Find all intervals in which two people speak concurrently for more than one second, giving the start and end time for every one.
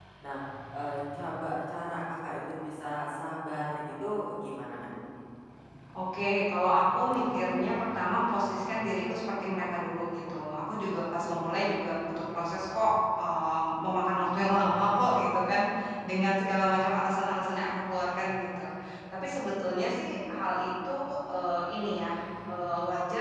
none

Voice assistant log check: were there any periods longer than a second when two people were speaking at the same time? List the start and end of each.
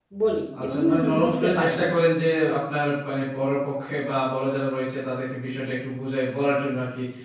0.6-1.9

